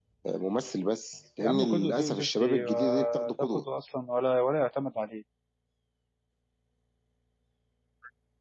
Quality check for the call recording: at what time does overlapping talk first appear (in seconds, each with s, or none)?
1.4 s